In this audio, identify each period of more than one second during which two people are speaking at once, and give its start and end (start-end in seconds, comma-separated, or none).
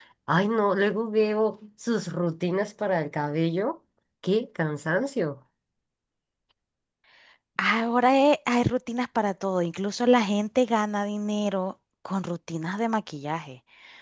none